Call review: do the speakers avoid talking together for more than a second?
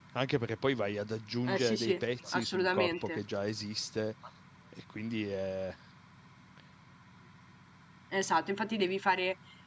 No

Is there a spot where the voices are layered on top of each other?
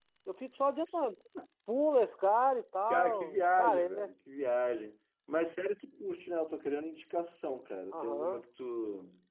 Yes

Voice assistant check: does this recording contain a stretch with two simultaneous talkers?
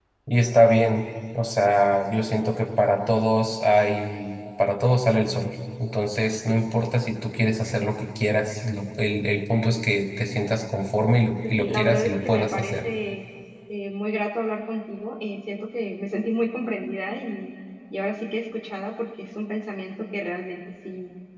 Yes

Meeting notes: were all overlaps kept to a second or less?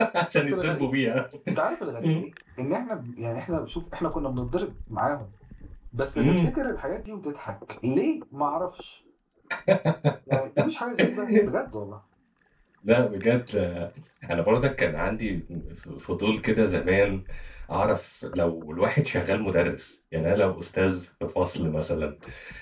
Yes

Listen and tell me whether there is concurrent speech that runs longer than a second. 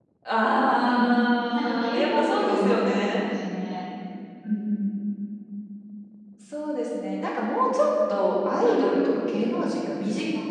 Yes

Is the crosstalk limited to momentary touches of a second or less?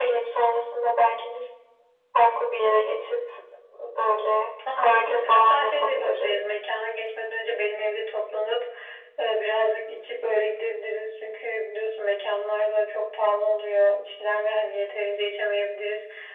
No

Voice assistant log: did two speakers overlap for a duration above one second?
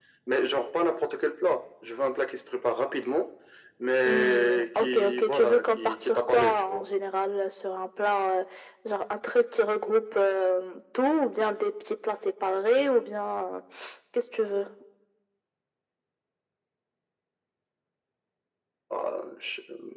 Yes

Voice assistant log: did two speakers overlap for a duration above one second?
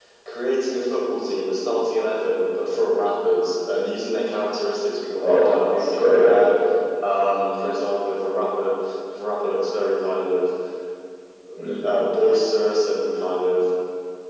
Yes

